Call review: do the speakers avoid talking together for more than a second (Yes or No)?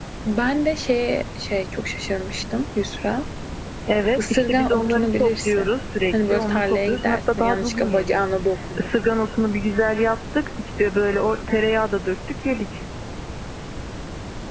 No